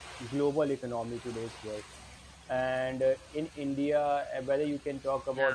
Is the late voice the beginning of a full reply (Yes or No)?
No